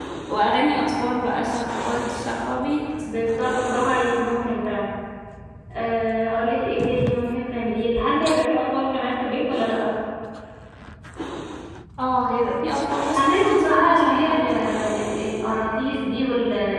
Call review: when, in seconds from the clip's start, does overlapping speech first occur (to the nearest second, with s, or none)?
13 s